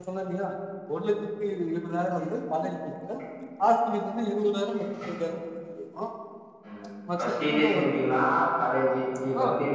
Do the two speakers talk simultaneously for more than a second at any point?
No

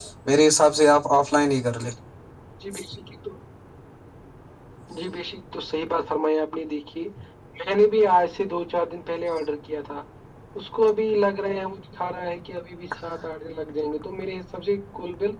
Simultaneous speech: No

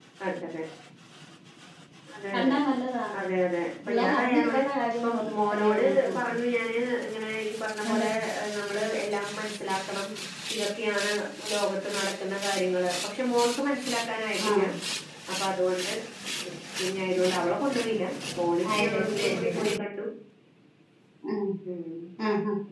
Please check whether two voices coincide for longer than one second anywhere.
Yes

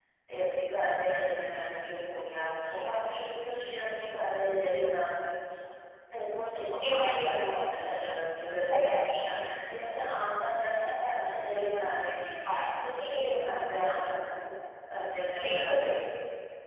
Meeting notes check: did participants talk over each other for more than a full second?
No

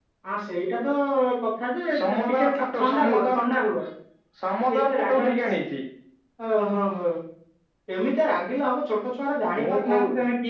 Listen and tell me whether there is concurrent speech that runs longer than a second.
Yes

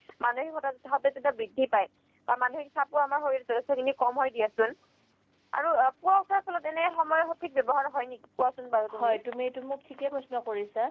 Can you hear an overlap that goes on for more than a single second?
No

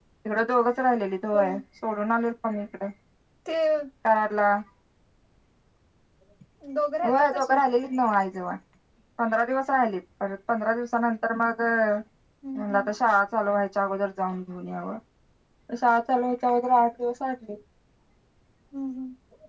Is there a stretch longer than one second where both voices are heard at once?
No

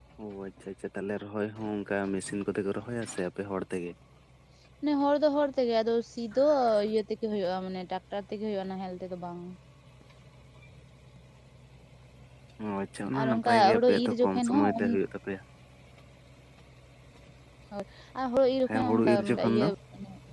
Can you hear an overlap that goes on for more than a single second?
Yes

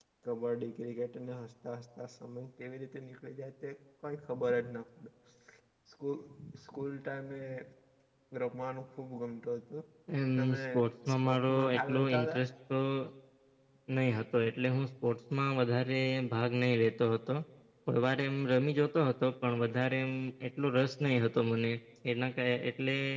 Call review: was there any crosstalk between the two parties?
Yes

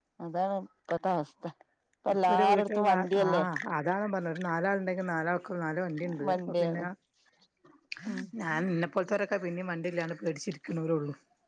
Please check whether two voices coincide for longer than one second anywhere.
Yes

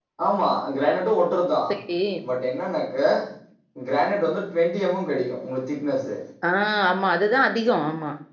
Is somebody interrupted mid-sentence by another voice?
No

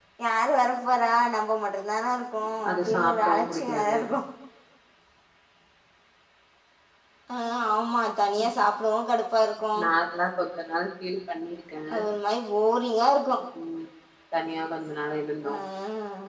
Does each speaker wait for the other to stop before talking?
No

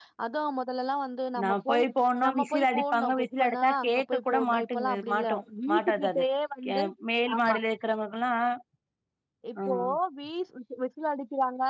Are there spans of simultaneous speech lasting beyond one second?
Yes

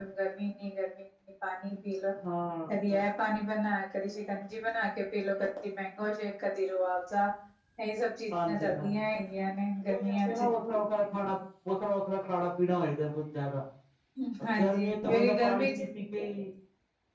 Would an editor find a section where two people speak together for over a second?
Yes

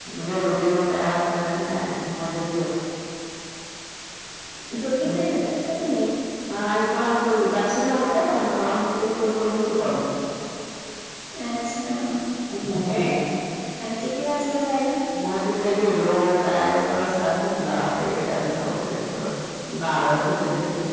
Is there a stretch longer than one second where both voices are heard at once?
No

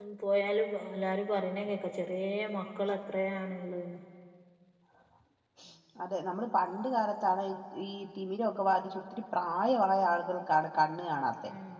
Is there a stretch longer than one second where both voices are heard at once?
No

